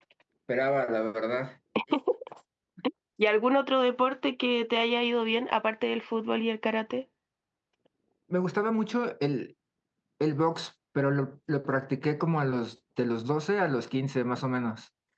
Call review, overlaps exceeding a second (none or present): none